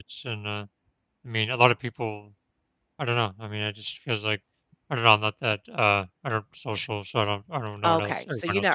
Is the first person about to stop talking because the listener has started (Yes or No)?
Yes